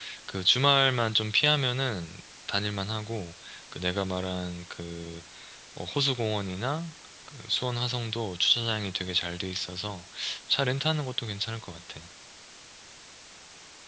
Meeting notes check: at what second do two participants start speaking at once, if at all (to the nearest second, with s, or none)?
none